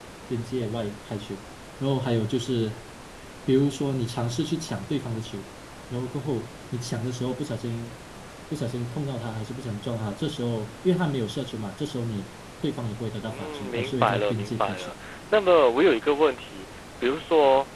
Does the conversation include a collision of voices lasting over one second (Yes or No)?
Yes